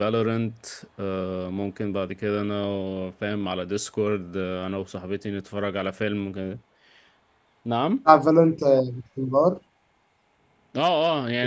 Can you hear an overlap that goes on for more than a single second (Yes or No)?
No